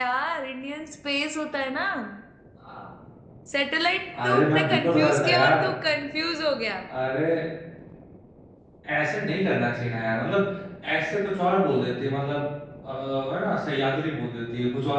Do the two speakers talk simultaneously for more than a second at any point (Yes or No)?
Yes